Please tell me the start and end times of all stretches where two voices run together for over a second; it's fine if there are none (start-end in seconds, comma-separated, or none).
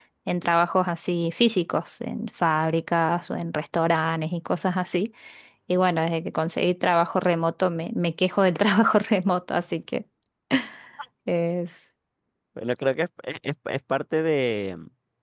none